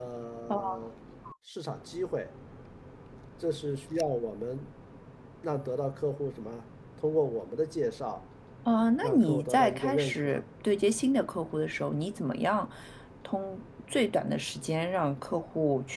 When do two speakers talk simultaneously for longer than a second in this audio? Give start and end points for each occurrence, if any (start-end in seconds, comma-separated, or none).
9.0-10.4